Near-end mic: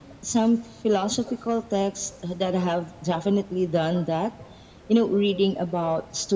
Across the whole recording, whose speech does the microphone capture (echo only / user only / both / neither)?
echo only